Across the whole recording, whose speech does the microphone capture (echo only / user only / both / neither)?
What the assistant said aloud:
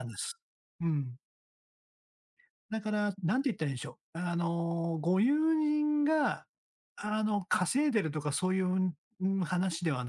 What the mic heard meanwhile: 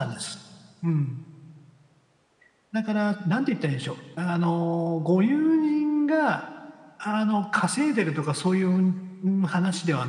echo only